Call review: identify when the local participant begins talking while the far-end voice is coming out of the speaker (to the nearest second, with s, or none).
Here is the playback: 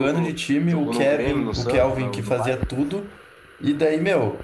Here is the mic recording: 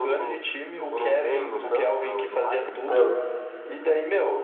3 s